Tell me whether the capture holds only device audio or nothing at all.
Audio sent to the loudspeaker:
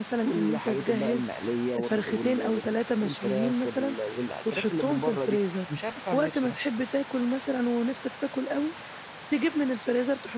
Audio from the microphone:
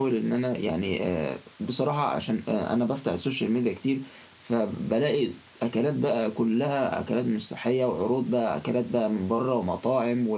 No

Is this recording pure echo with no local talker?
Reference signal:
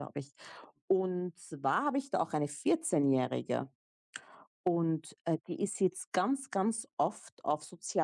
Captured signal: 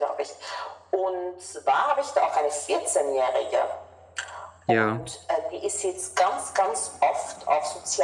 No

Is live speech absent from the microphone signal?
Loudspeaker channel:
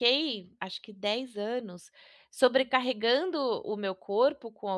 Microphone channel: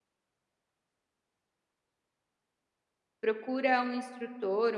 No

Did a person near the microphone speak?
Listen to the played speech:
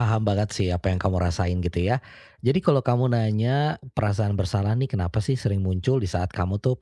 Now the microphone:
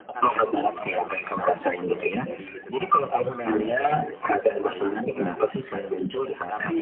Yes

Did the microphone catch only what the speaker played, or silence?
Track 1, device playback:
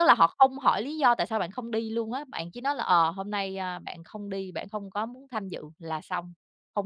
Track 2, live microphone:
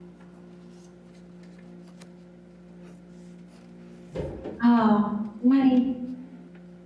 No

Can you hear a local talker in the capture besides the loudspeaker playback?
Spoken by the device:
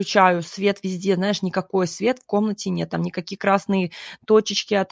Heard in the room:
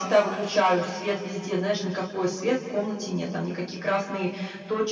No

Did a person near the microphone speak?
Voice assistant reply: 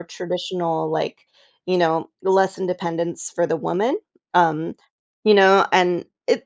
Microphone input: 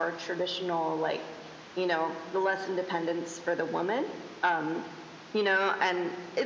No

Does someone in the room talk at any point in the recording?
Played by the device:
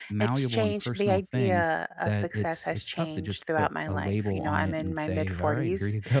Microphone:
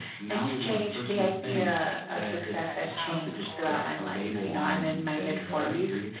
Yes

